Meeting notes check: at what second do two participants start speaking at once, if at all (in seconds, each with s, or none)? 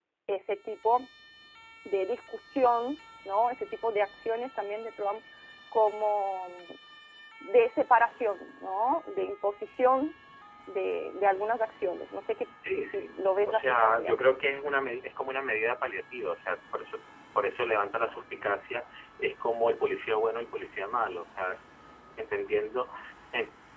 12.9 s